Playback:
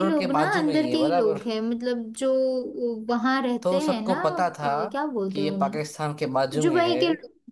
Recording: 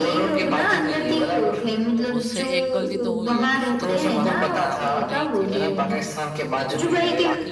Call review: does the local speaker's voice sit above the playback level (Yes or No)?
No